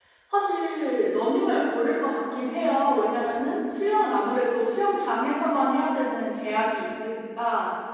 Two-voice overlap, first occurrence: none

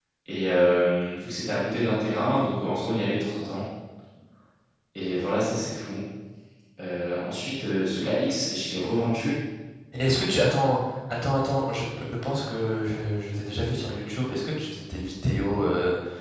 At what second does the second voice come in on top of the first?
none

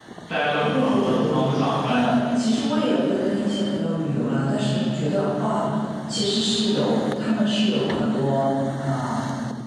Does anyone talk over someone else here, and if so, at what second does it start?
0.7 s

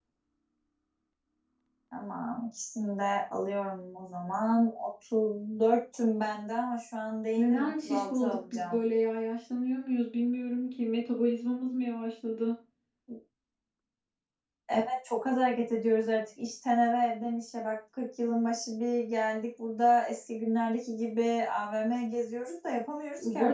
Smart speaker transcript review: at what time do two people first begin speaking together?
7.3 s

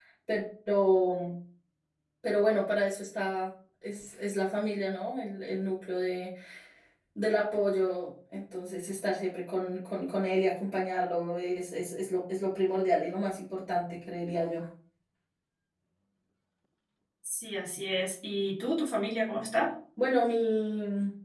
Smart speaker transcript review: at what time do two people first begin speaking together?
none

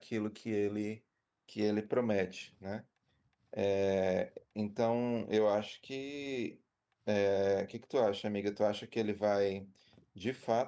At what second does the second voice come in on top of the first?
none

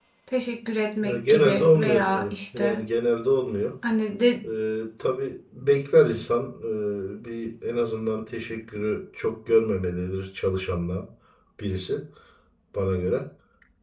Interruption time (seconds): 1.0 s

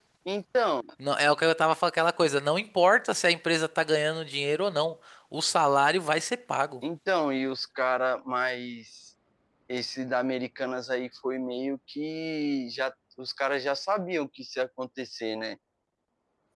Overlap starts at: none

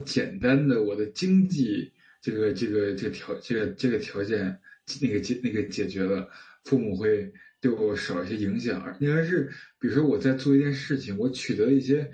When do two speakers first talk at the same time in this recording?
none

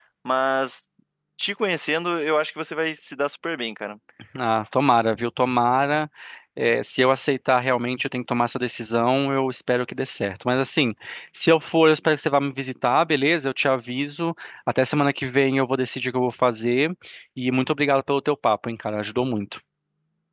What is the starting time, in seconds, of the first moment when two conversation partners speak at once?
none

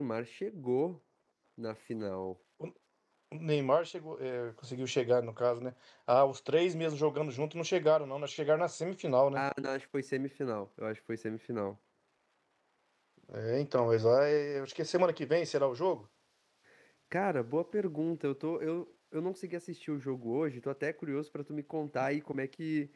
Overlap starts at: none

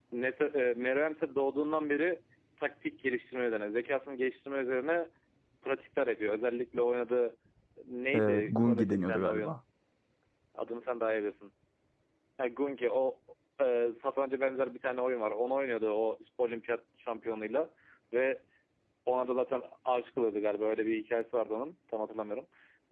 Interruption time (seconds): 8.1 s

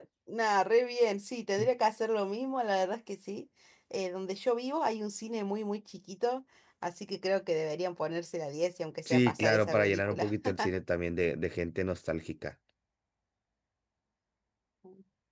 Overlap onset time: 9.1 s

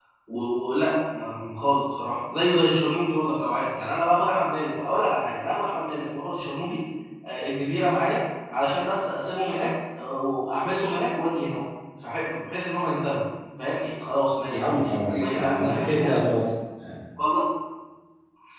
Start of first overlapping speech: 14.5 s

